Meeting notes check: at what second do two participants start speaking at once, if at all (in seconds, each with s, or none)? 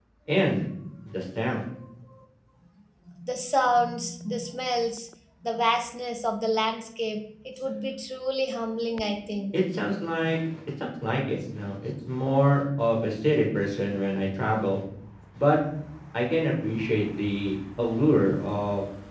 none